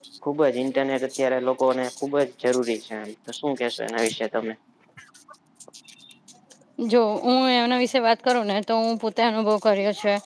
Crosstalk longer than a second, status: none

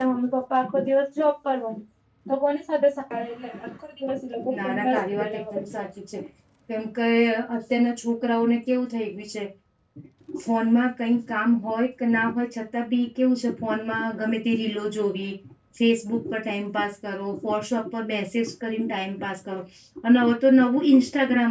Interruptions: present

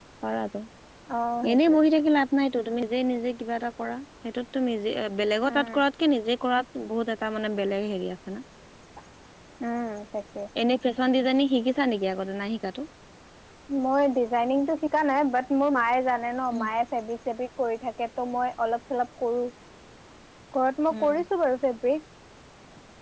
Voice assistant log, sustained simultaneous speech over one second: none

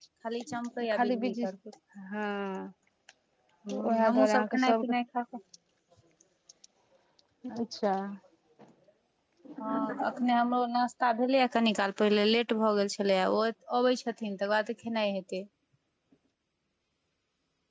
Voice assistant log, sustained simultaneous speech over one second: present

